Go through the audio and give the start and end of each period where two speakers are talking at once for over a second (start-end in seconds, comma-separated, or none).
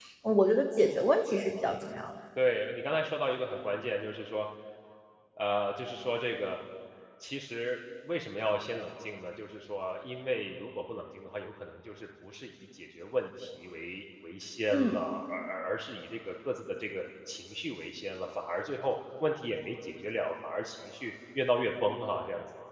none